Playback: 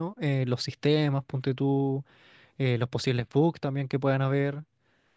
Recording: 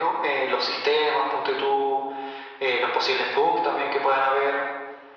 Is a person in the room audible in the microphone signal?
No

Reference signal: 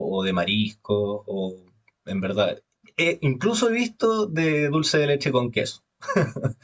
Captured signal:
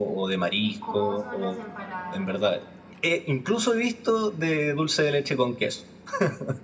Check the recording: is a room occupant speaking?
Yes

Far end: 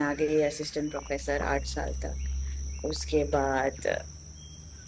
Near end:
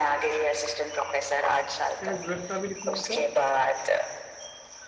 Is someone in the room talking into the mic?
Yes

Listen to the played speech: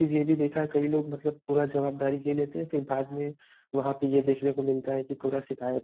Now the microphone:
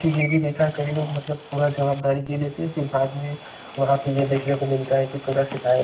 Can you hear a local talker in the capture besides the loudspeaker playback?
No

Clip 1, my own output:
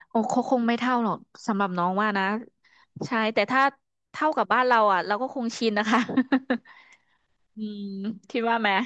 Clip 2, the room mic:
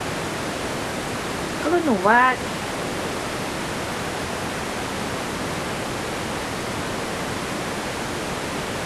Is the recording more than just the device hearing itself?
Yes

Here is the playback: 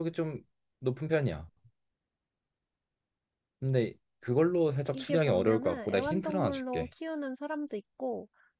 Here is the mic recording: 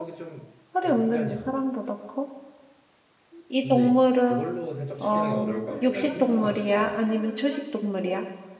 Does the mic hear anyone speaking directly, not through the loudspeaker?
Yes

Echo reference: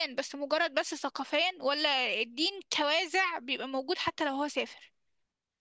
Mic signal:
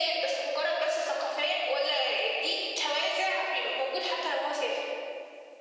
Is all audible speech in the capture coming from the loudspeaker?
Yes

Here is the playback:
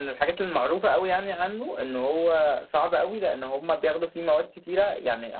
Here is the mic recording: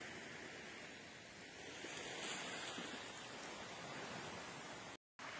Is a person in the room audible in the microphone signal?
No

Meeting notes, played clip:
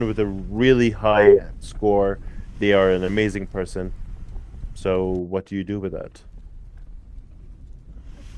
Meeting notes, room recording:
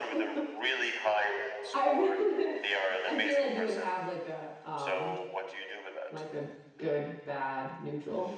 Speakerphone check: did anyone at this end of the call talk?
Yes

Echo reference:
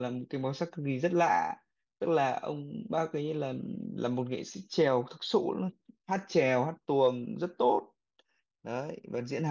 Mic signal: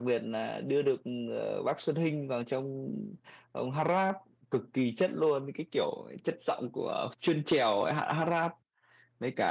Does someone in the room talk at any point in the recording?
Yes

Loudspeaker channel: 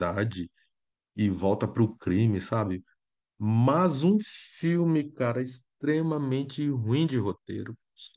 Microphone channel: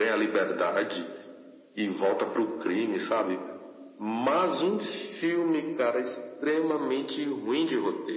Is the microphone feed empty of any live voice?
Yes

